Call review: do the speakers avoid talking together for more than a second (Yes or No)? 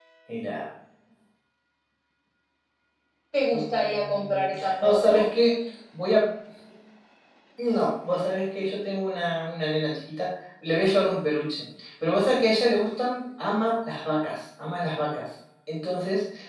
No